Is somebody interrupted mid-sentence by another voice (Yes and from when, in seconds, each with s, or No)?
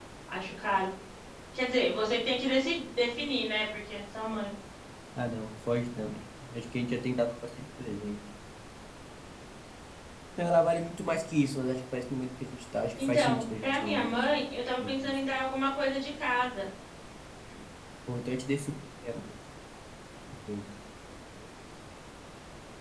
Yes, from 13.0 s